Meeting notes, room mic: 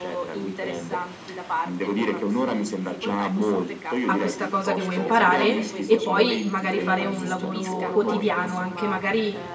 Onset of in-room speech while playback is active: 4.0 s

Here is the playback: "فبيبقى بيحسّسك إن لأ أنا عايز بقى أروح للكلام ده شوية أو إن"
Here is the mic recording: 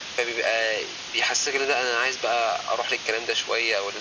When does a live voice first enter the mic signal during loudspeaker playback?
none

